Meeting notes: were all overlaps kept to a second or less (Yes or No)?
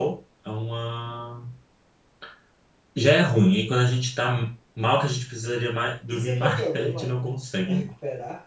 No